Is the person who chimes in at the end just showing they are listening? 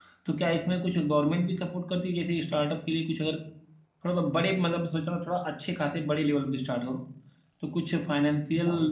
Yes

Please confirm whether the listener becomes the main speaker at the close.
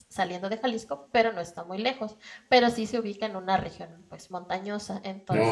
No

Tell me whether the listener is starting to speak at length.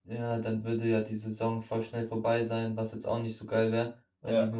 No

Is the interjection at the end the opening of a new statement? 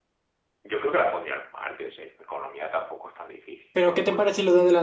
Yes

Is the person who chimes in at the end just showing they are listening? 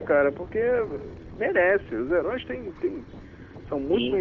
Yes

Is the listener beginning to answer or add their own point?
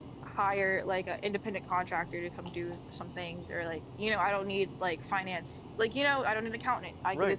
Yes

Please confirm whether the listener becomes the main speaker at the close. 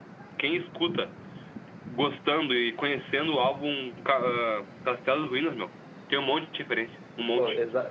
Yes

